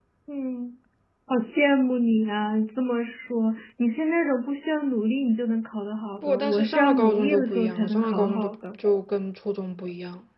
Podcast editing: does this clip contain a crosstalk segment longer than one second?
Yes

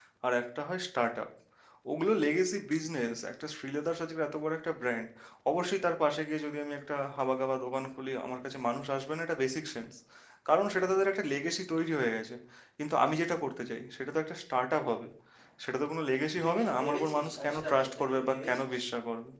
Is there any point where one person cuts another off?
Yes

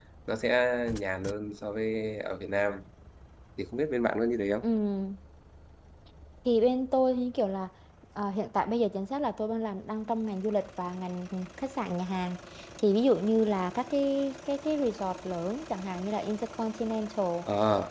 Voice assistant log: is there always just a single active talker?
Yes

